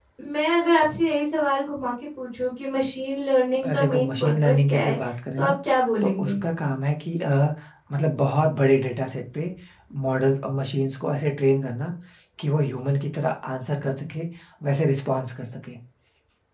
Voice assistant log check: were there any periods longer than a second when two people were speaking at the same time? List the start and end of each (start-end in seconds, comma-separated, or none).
3.6-5.0